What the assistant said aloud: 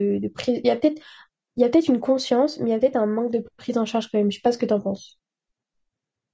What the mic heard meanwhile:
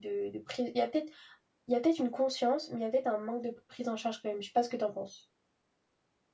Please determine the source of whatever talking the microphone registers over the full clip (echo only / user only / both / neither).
echo only